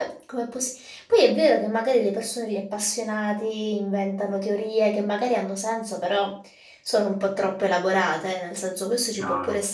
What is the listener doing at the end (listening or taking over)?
listening